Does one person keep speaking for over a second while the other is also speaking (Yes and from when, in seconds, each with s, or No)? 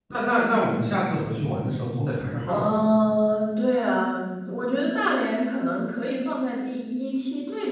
No